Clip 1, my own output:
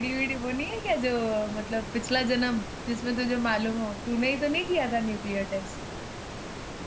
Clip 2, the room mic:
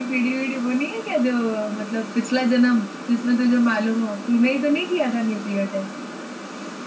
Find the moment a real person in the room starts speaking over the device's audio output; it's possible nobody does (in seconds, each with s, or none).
none